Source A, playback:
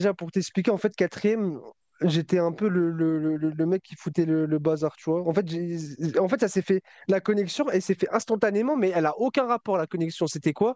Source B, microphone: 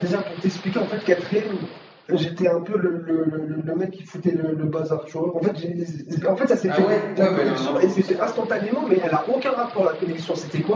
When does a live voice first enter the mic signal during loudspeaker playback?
7 s

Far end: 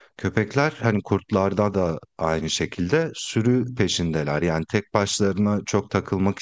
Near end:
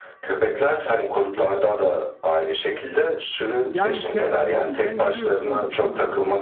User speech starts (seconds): 4 s

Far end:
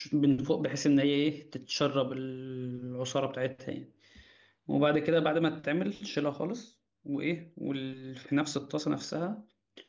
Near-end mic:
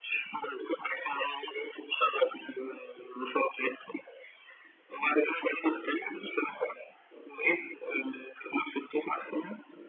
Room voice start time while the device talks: none

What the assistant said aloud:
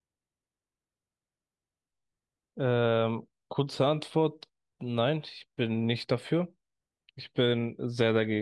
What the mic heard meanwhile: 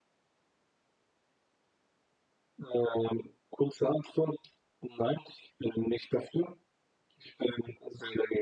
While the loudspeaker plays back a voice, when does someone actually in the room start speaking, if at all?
none

